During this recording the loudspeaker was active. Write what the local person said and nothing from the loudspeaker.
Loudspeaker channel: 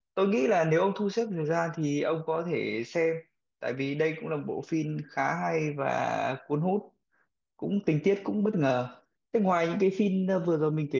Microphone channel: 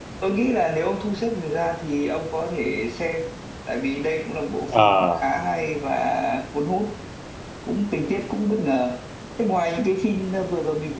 À,

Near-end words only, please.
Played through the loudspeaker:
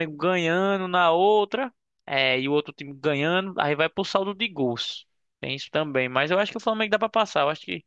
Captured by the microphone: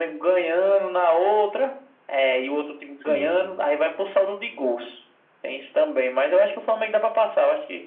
sim.

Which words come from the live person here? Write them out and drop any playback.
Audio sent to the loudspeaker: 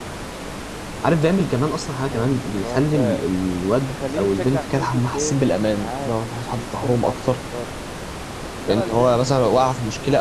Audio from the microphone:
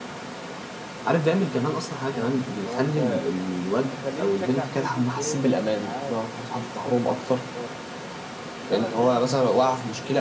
none

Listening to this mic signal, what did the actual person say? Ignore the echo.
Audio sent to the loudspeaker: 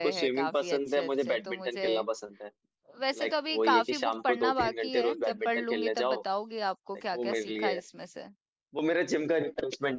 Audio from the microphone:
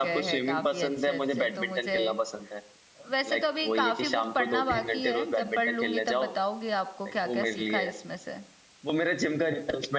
none

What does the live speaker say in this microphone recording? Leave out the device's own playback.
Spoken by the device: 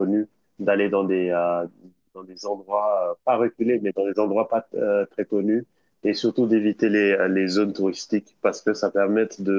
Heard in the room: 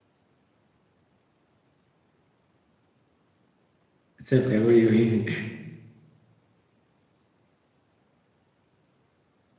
c'est vrai, oui, oui.

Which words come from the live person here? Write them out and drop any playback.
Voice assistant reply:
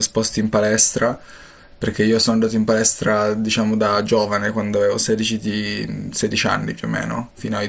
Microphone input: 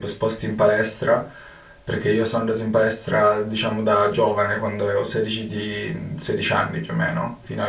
none

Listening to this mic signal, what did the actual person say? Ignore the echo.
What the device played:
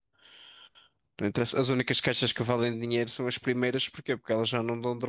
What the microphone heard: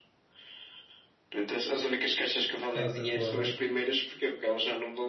estava sempre fora de rede.

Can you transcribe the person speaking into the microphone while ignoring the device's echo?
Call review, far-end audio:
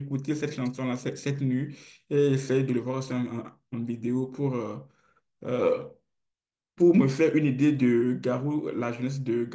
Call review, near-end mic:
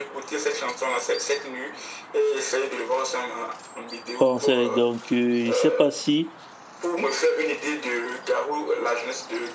française. Donc, euh, je ne sais pas si

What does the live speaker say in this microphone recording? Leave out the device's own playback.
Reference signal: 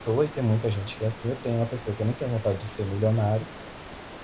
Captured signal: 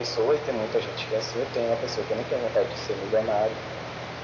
none

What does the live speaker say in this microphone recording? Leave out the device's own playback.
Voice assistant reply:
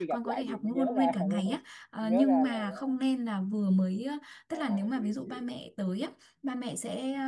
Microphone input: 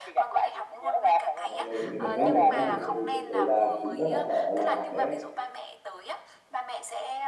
Về cái này để mình nói là mình nói về tại vì thật sự là cũng rất là sợ là bé

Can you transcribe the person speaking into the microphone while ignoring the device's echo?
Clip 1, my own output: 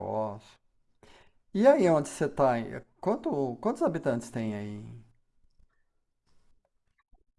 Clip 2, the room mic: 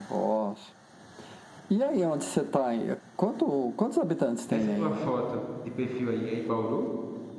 Essa tua foto de perfil aí é em Bauru?

